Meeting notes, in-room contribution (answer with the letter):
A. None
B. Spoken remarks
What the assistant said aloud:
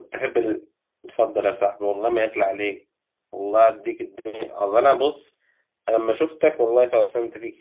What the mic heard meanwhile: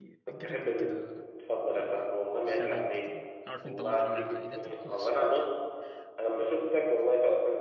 B